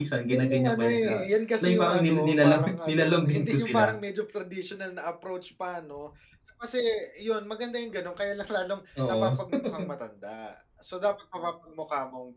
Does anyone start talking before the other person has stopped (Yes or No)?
Yes